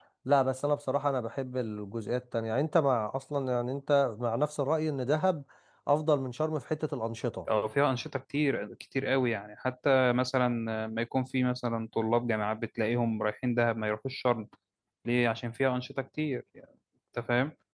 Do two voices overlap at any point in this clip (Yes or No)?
No